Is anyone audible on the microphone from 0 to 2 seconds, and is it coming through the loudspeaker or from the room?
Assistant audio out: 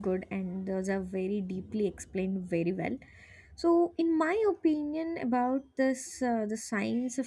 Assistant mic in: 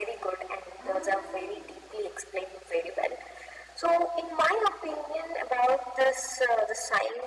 both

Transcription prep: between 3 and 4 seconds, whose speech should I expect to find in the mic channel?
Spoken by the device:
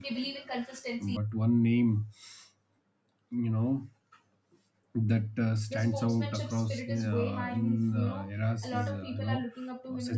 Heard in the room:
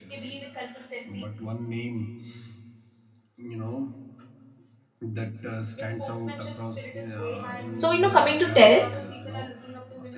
echo only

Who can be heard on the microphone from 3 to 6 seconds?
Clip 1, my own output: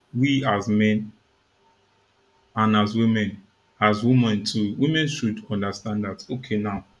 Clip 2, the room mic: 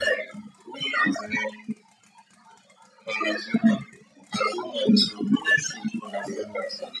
echo only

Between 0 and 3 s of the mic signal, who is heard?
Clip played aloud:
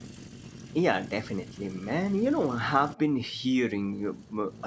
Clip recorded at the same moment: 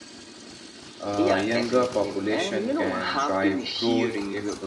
both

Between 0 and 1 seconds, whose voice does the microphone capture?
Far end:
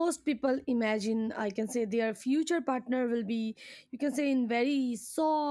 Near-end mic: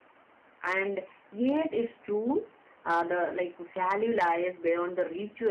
user only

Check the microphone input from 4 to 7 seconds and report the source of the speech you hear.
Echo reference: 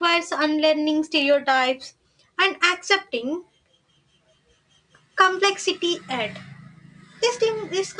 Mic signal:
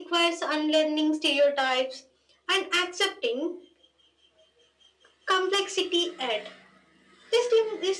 echo only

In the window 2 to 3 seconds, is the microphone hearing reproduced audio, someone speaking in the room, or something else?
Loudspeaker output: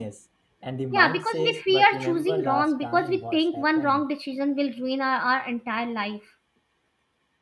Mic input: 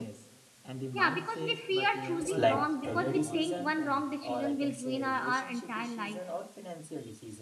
both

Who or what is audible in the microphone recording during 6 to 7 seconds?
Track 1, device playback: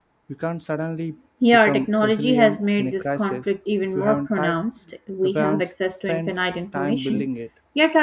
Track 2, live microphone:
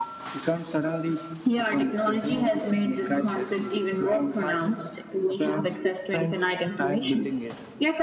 echo only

